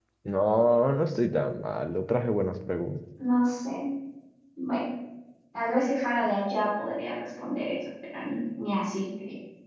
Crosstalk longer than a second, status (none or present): none